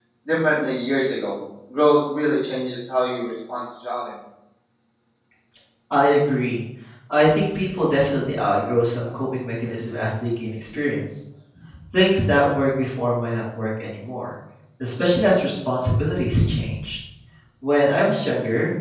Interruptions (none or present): none